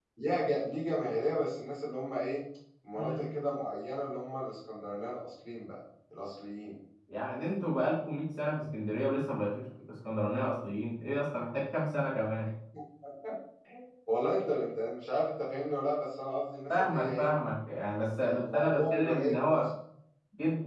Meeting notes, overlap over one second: present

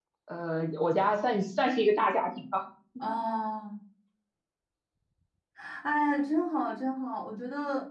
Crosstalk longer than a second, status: none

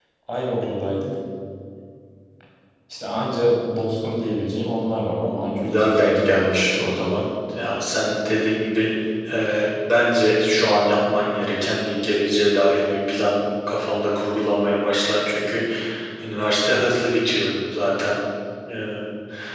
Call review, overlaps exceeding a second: present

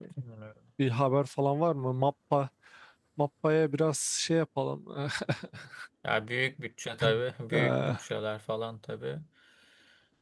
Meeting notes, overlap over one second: none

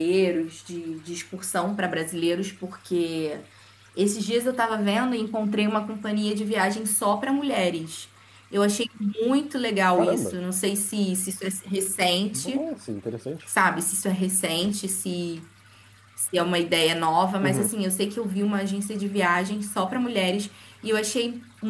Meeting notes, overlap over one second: none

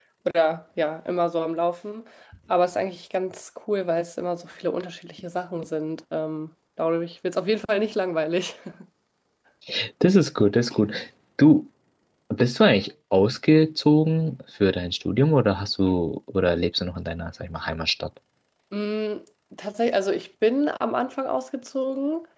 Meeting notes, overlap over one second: none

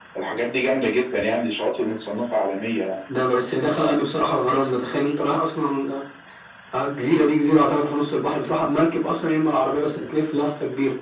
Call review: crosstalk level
none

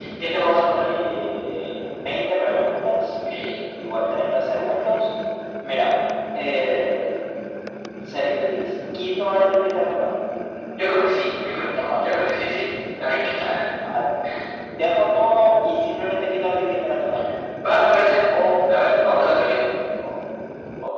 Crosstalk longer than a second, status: none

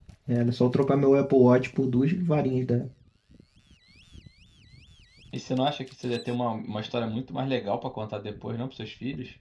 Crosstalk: none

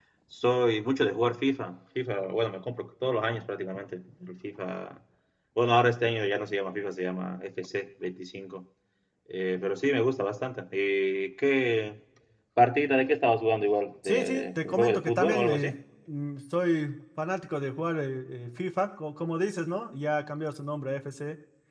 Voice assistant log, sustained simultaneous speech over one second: present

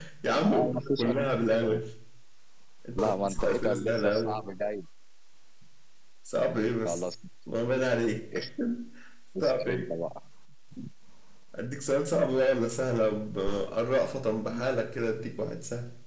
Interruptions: present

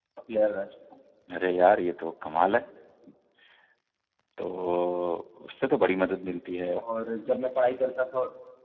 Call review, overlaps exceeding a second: none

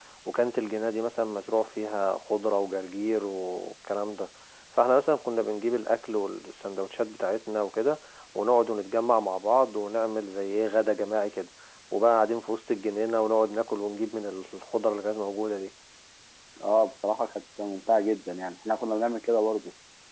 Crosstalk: none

